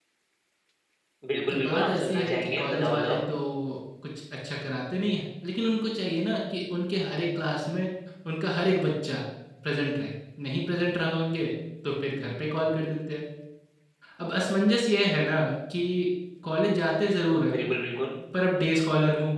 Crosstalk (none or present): present